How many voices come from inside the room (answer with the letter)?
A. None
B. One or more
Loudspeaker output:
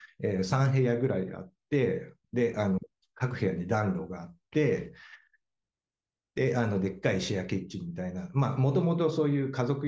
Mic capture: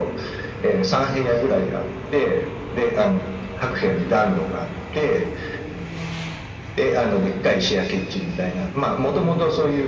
A